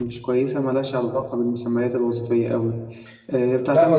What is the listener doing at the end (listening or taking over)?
taking over